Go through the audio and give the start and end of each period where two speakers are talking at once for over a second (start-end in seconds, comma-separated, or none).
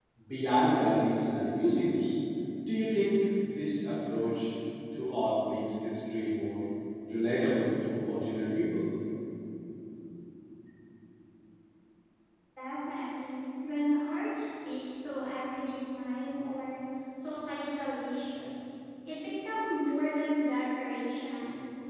none